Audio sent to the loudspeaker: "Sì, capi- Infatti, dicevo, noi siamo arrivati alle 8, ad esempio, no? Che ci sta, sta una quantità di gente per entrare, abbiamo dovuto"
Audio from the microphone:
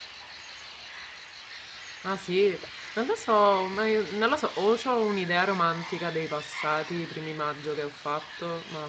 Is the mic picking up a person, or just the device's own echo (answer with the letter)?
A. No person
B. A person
B